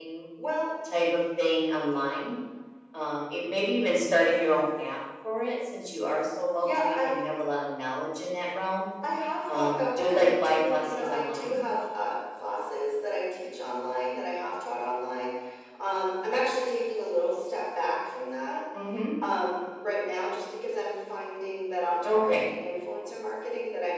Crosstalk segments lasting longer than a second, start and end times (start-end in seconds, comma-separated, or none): 9.5-11.6